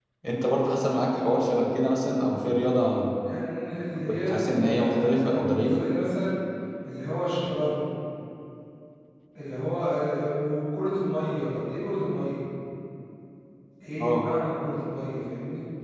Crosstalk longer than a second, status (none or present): present